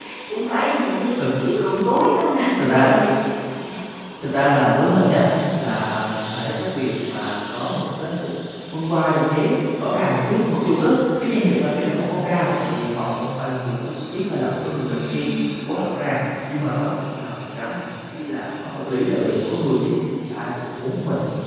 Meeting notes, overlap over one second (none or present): none